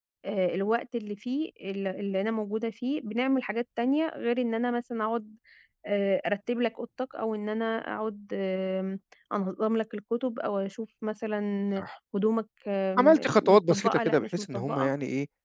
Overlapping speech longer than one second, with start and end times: 13.0-14.9

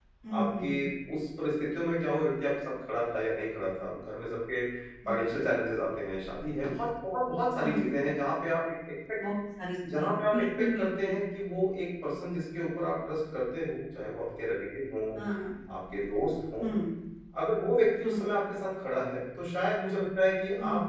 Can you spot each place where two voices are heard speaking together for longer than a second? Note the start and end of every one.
9.9-11.1

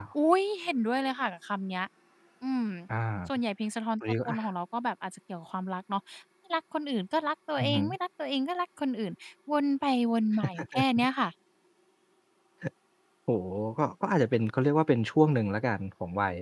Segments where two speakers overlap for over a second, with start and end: none

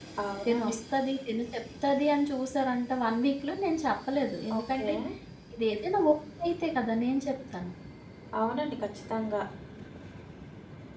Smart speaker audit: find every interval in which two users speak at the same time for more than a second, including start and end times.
none

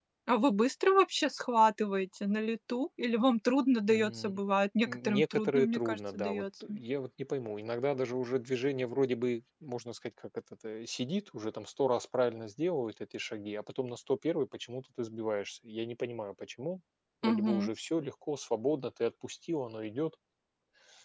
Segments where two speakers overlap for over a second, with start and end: 4.9-6.8

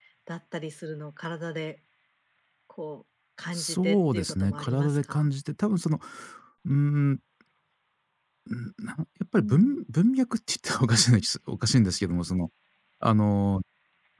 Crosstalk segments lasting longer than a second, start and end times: 3.5-5.3

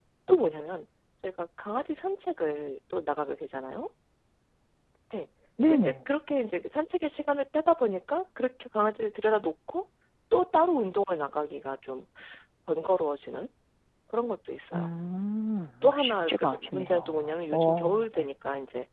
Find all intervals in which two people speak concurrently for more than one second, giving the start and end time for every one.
15.8-18.3

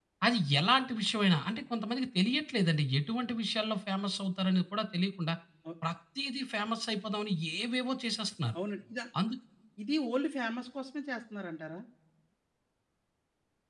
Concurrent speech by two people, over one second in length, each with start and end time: none

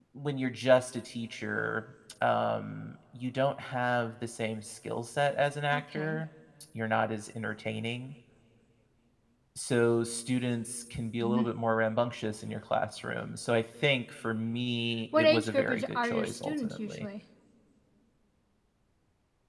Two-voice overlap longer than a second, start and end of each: 15.2-17.1

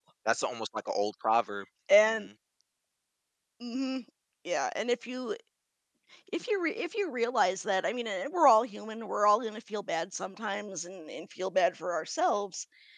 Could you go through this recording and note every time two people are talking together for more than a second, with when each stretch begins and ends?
none

